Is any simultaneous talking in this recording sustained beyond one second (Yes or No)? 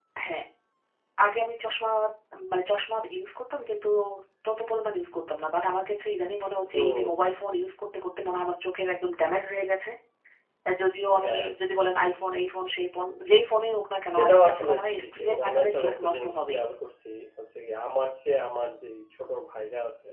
Yes